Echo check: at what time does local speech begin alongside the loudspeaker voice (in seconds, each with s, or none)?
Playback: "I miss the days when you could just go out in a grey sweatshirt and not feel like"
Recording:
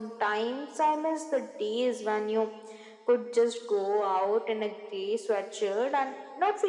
none